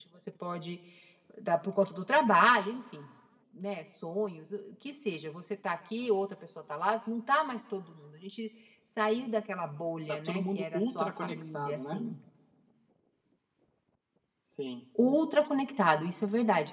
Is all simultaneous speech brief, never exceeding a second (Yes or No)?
No